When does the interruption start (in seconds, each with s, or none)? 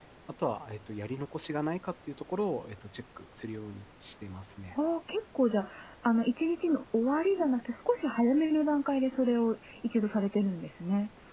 none